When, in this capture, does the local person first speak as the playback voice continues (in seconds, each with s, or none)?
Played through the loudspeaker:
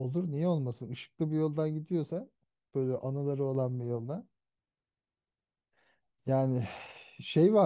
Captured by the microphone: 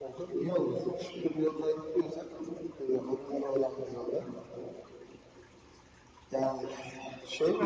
none